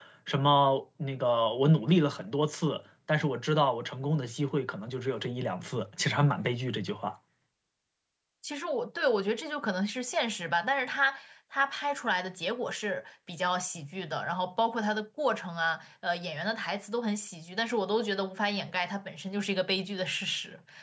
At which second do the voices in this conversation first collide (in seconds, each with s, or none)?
none